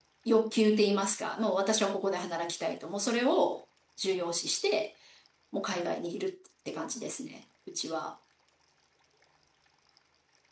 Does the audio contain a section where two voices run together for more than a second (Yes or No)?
No